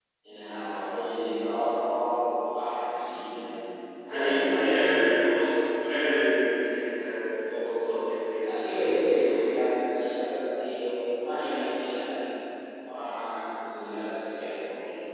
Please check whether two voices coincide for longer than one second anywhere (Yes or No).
Yes